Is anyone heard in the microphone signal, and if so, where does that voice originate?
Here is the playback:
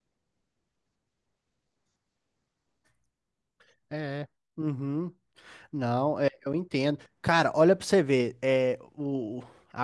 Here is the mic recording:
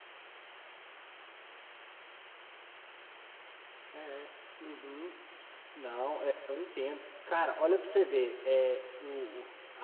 echo only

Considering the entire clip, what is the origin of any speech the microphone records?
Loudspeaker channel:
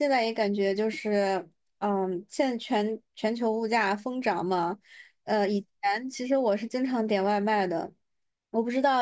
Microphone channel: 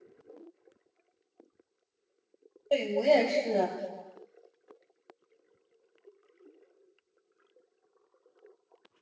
user only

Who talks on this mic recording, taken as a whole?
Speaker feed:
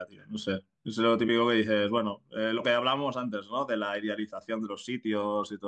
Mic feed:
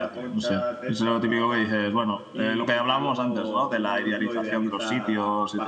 both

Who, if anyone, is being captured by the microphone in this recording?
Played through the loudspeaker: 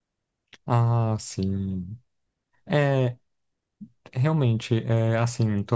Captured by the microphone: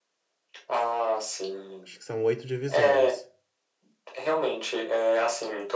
both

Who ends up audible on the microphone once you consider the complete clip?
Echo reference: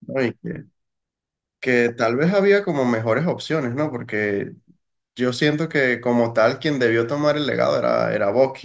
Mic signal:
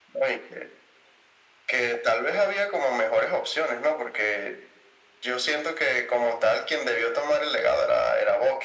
echo only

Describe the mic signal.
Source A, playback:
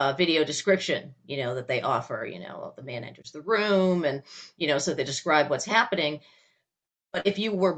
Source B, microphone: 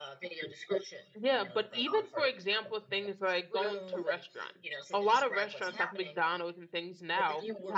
both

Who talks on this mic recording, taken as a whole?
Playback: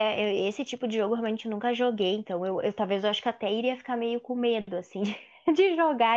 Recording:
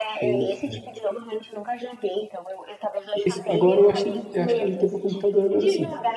both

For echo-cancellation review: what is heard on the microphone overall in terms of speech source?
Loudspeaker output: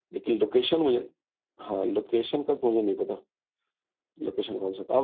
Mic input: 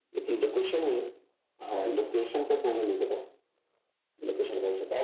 echo only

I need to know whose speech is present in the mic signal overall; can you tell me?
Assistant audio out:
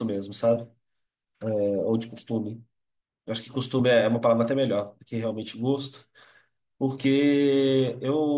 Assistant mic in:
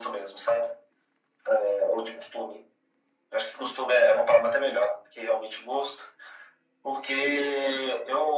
echo only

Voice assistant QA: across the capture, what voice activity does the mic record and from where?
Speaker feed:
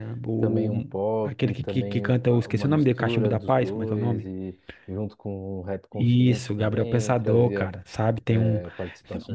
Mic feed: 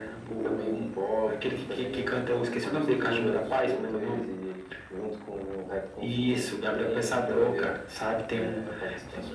echo only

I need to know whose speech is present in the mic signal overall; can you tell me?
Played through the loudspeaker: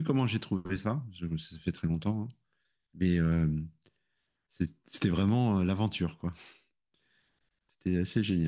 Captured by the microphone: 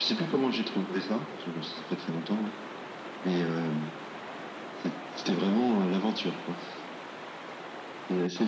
echo only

